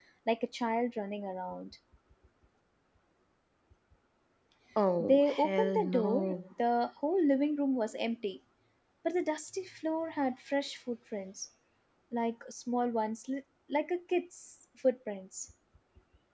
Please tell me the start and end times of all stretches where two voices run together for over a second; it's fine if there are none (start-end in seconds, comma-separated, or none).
5.0-6.4